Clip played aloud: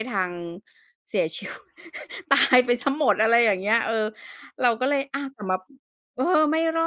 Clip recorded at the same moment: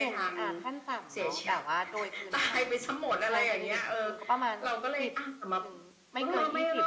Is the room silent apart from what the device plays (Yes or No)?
No